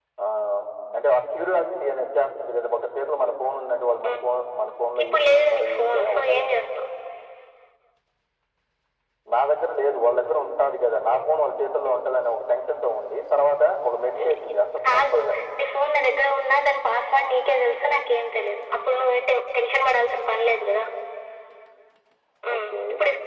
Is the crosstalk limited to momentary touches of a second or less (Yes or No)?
No